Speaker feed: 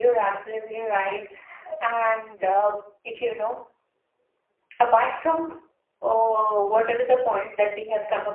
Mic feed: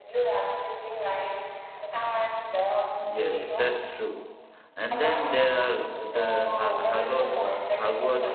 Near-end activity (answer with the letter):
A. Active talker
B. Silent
A